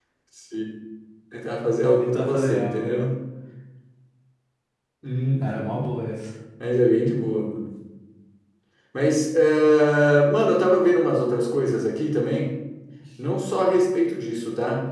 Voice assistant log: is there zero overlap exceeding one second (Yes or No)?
No